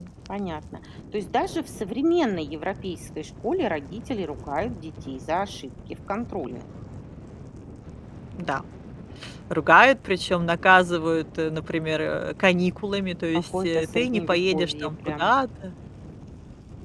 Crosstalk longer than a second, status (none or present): present